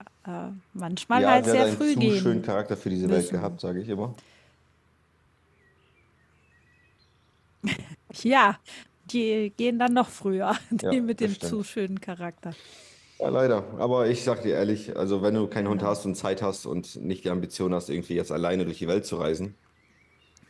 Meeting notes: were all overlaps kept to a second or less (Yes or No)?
No